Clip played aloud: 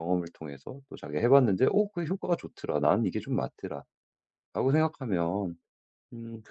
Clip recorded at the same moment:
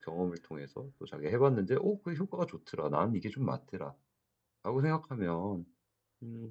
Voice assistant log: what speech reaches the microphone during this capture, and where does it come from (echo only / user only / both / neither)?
echo only